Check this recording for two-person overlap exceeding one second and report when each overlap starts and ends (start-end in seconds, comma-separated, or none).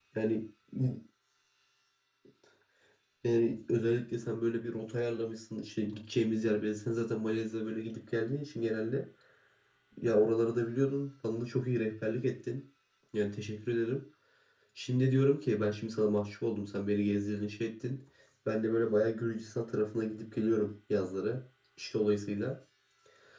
none